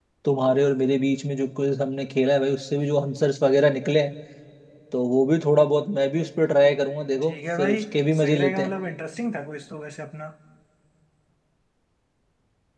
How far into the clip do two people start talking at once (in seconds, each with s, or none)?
7.2 s